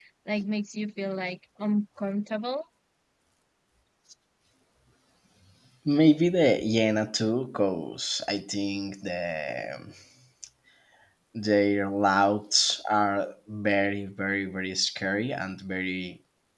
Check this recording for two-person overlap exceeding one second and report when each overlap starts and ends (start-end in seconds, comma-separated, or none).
none